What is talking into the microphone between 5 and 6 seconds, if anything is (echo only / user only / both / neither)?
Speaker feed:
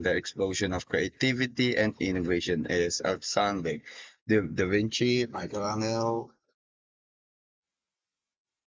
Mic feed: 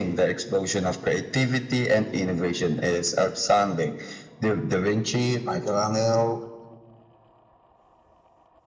echo only